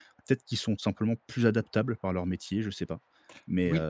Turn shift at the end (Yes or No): Yes